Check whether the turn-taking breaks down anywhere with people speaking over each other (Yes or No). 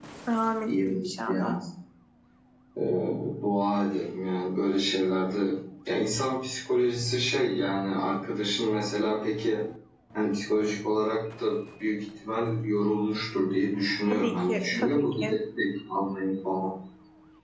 Yes